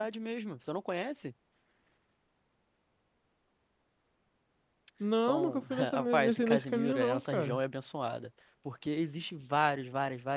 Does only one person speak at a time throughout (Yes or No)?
No